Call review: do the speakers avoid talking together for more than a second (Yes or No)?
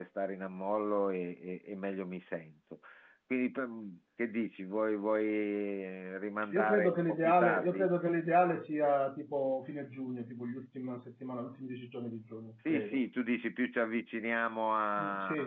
No